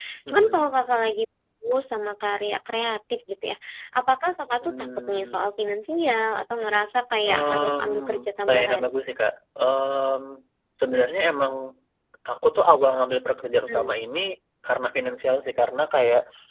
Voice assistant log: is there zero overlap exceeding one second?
No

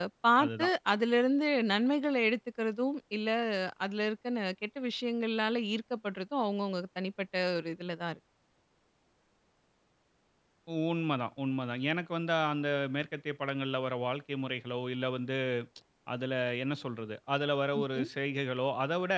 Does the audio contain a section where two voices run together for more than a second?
No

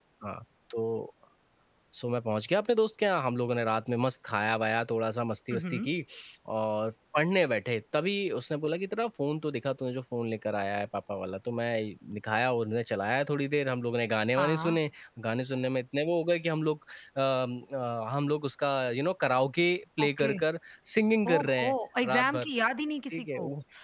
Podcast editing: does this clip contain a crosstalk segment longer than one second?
No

